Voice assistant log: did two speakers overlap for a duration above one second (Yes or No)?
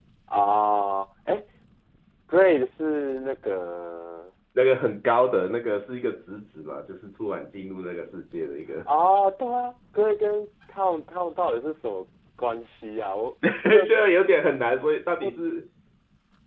No